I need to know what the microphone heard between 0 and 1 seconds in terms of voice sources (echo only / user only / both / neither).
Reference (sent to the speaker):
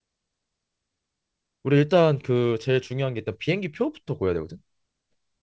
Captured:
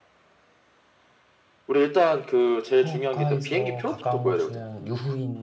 neither